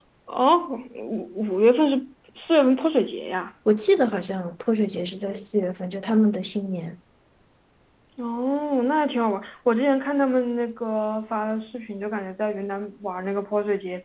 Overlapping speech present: No

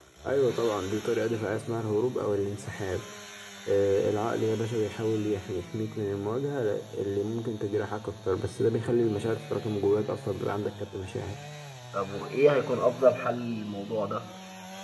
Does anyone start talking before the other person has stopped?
No

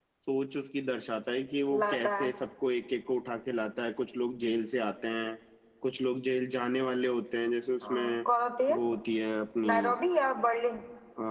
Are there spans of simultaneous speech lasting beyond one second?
No

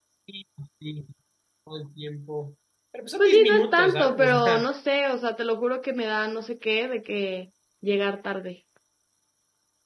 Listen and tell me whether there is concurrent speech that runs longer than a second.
Yes, from 3.2 s

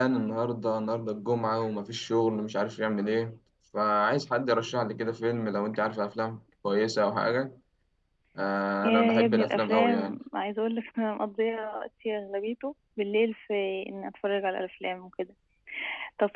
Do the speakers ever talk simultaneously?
Yes, from 8.8 s

